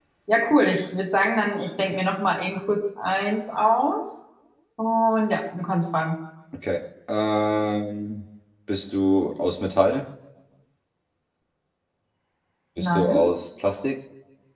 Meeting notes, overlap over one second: none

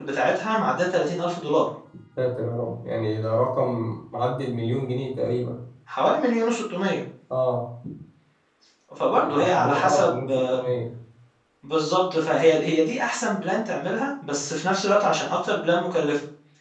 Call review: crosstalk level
present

